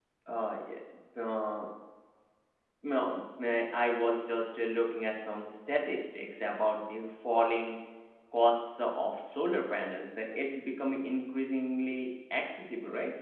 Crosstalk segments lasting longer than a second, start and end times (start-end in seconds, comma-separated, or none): none